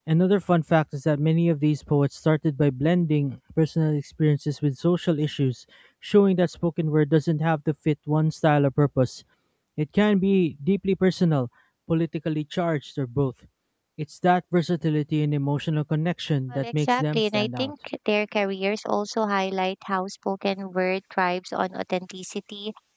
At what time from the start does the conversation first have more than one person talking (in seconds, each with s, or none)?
16.5 s